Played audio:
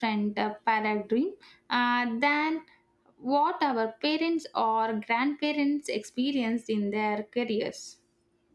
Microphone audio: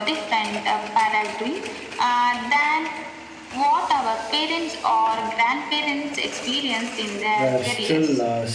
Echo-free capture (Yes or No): No